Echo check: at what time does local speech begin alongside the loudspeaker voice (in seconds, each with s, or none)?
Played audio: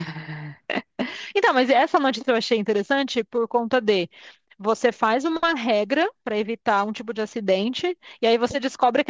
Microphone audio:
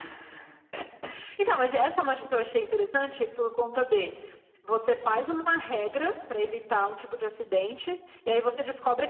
none